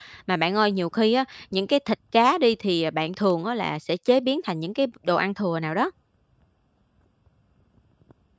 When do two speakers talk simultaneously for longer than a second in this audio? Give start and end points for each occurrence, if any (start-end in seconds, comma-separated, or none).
none